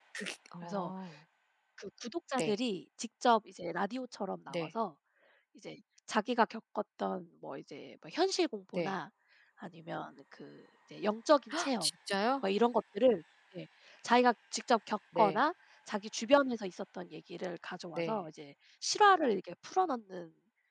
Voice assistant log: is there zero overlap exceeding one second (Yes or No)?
Yes